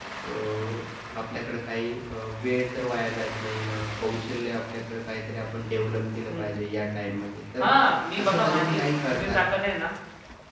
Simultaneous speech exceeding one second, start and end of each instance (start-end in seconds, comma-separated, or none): 8.2-9.4